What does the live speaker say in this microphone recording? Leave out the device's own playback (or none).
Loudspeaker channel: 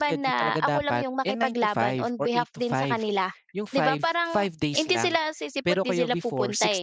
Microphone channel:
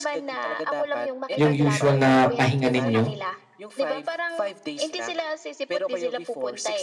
yung usual na pahinga ninyo